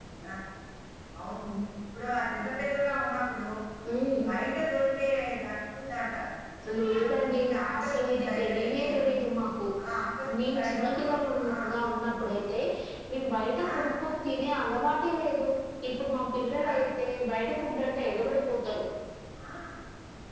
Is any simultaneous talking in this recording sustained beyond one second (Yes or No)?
Yes